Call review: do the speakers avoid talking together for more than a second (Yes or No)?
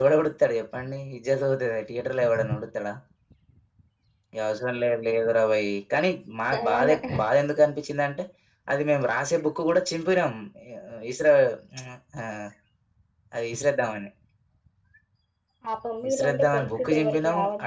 No